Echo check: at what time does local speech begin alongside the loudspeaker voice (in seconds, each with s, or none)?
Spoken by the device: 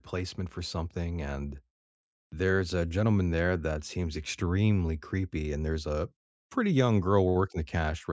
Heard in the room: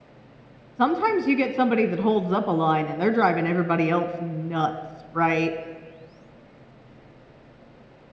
0.7 s